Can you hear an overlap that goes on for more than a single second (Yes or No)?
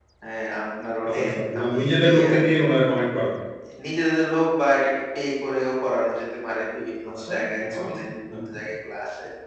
Yes